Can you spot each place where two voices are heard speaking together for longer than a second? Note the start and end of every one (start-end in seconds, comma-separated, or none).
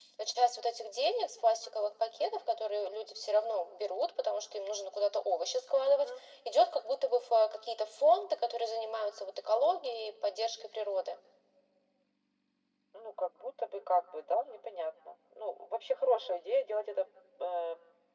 none